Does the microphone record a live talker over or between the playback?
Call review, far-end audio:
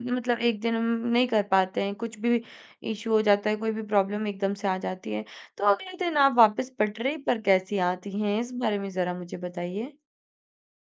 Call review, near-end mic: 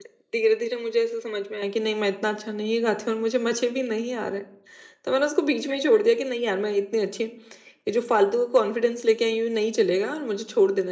Yes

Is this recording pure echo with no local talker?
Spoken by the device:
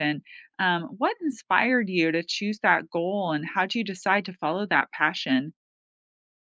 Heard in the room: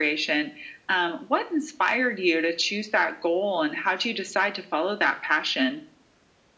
Yes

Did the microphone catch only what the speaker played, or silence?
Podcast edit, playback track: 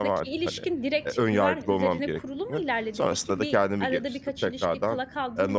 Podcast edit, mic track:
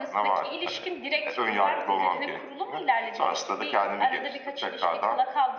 Yes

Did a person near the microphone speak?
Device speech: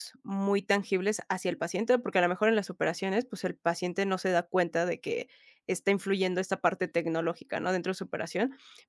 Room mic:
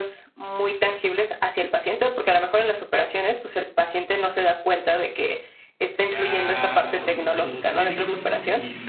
Yes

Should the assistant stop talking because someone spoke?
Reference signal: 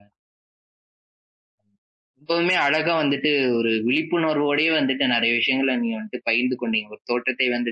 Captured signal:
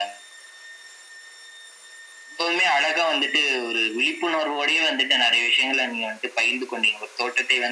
No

